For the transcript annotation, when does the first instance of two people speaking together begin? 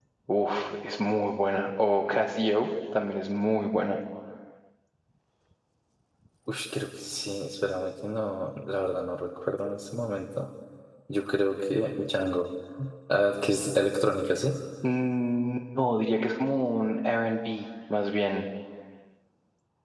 none

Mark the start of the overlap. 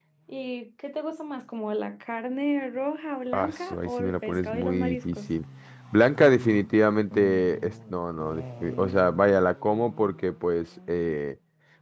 3.3 s

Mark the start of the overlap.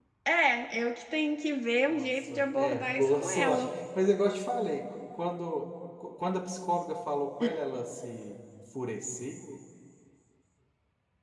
1.9 s

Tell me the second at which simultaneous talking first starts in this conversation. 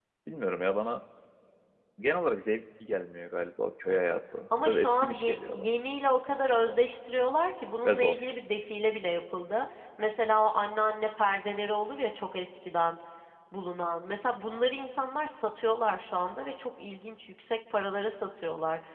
4.5 s

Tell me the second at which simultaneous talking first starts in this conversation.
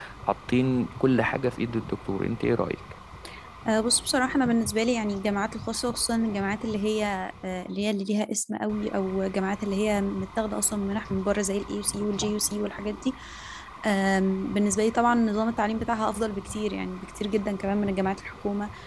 none

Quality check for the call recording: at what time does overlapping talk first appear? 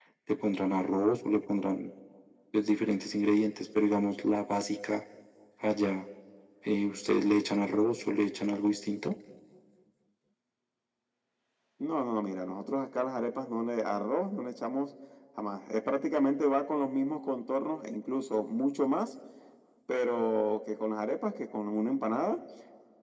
none

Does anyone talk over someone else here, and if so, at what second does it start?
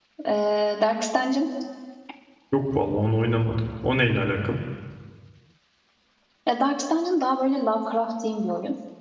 none

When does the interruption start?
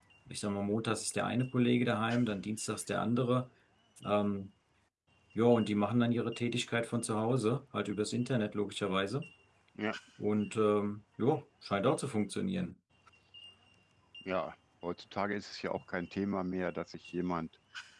none

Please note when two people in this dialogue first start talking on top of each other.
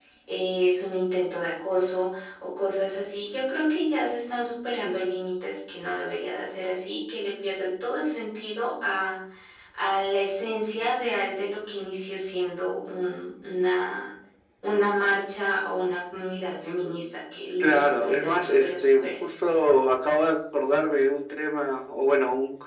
17.6 s

